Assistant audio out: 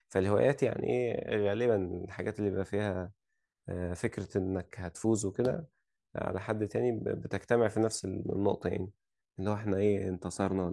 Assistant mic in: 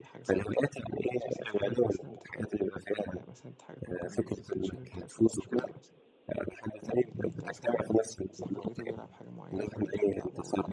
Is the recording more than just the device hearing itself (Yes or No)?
Yes